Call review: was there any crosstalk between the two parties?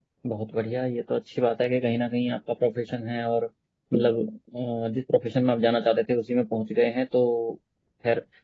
No

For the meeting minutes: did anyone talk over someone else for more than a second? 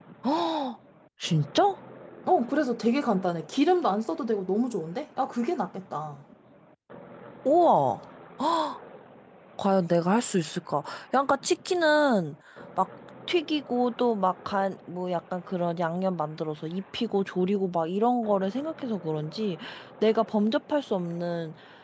No

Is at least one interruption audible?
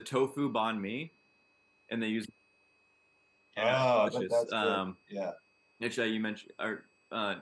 Yes, from 3.6 s

